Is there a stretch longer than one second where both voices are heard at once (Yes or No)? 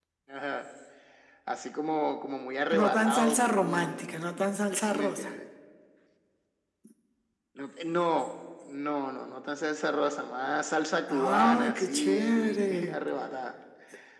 Yes